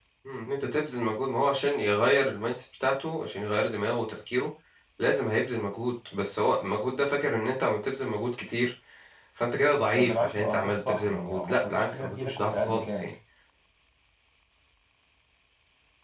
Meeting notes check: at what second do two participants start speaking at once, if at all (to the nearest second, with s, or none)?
10 s